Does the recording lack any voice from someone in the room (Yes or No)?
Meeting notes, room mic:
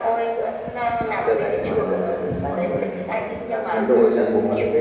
No